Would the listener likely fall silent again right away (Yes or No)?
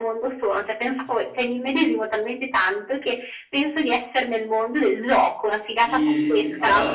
No